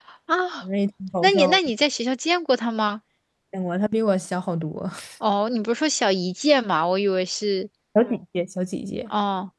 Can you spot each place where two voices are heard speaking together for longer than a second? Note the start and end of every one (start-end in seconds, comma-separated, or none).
none